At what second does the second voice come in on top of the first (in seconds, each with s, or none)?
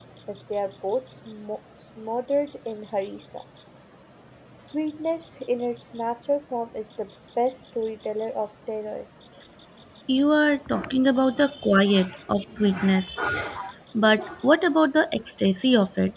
none